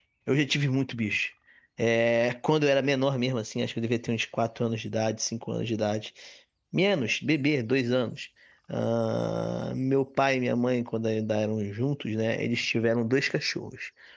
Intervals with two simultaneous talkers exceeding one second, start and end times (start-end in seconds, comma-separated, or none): none